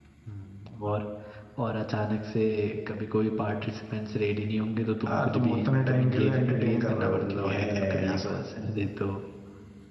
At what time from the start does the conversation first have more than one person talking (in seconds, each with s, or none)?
5.0 s